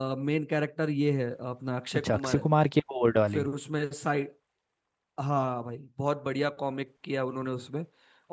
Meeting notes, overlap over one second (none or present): none